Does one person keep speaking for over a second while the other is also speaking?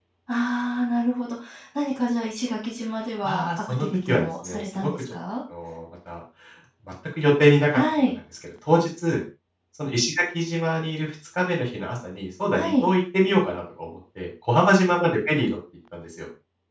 Yes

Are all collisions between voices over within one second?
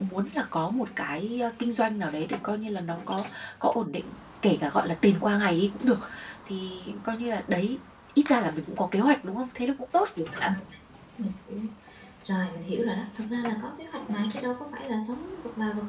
Yes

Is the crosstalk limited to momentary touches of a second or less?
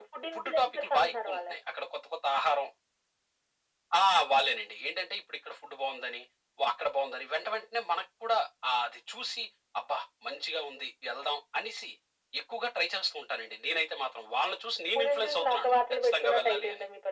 No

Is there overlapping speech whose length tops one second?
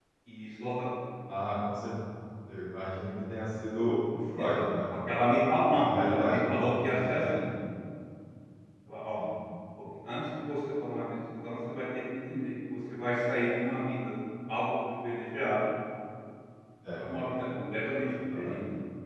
Yes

